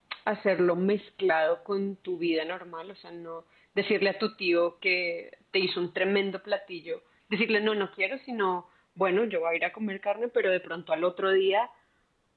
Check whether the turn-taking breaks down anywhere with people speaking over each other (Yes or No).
No